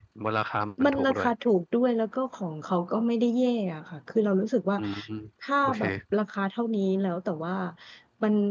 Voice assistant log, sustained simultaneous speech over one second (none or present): none